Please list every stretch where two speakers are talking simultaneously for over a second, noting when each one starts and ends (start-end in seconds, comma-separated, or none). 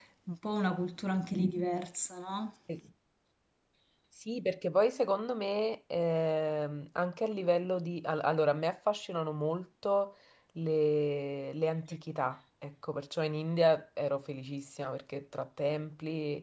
none